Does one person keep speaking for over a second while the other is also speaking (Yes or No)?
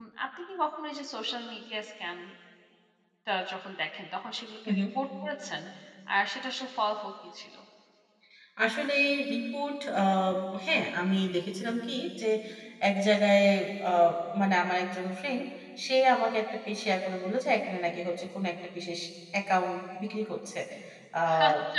No